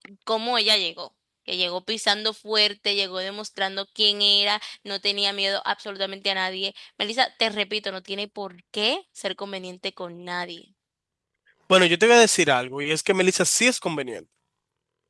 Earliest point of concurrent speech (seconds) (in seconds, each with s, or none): none